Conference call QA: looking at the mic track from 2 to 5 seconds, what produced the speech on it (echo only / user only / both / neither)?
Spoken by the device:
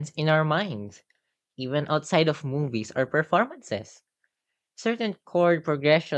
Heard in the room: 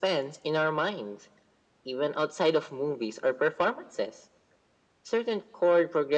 echo only